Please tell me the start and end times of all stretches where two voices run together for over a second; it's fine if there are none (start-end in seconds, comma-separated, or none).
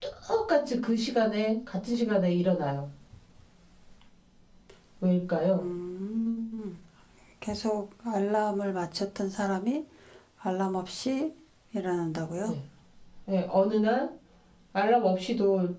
none